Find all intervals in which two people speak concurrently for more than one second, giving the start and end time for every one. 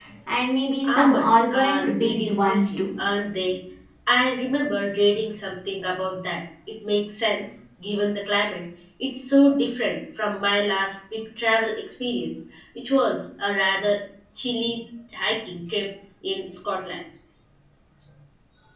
0.9-2.8

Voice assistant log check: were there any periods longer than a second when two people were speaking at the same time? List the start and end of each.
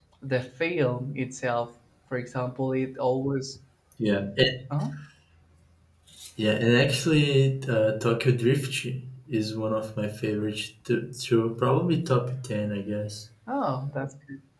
none

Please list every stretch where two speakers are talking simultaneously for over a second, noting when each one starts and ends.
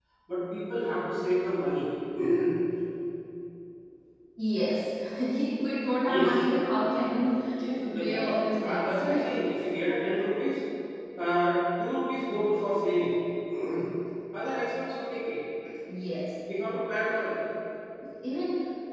7.8-9.4

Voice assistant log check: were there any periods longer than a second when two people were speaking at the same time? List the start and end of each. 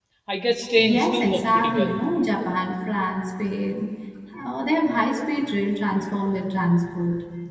0.8-2.0

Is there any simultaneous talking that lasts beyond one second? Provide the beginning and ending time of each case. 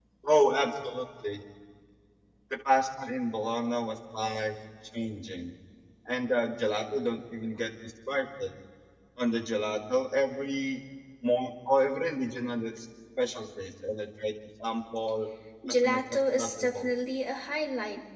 15.7-16.9

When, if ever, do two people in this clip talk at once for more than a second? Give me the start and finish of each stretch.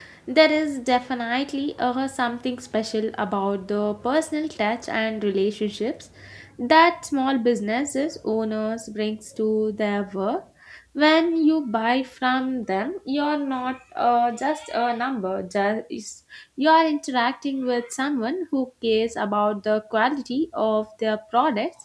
none

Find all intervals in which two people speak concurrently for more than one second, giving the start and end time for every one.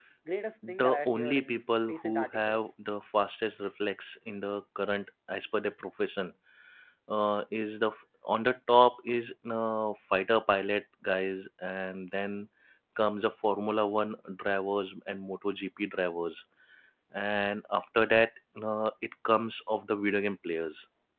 0.7-2.6

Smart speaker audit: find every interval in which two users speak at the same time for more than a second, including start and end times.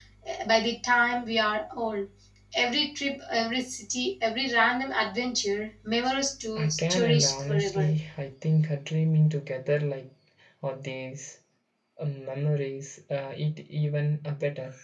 6.6-7.9

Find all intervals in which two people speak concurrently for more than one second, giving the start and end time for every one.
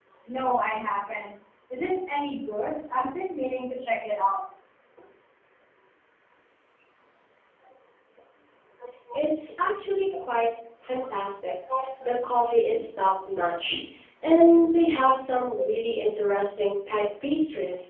none

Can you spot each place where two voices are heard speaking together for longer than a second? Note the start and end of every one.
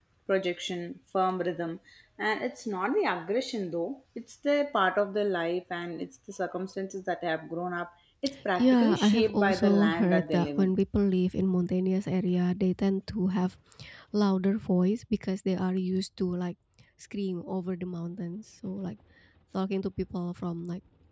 8.6-10.7

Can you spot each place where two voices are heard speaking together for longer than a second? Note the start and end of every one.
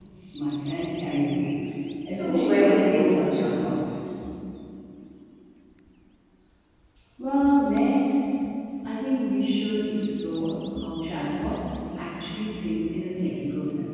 2.1-3.7

